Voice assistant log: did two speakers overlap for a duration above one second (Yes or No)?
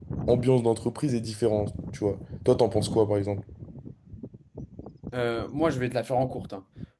No